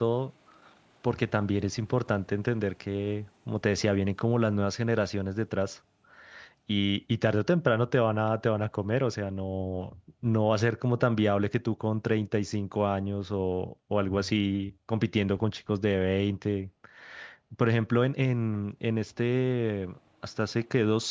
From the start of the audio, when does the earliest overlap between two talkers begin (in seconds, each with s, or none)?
none